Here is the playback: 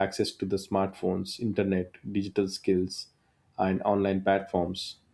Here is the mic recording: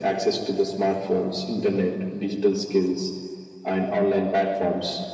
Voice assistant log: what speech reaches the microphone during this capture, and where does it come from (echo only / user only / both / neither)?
echo only